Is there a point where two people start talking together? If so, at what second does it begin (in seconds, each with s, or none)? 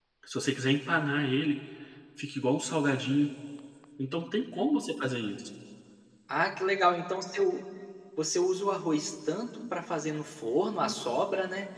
none